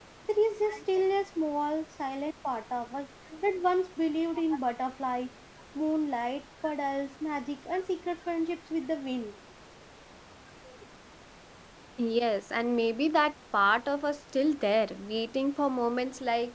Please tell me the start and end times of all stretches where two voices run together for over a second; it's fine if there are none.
none

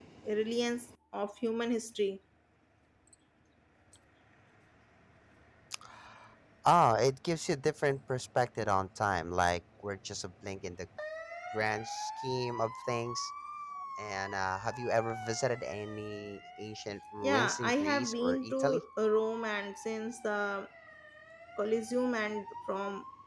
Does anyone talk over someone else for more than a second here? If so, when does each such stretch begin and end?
17.2-18.8

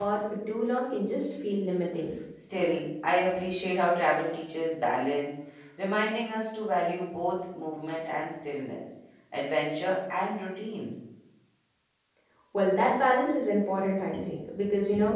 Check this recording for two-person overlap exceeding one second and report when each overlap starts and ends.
none

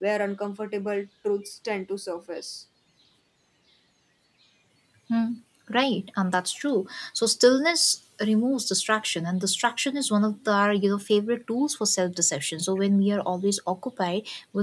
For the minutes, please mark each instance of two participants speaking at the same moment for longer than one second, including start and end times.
none

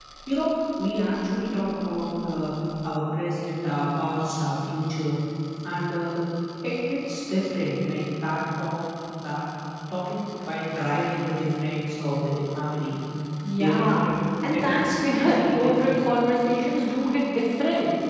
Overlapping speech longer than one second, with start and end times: 14.5-16.0

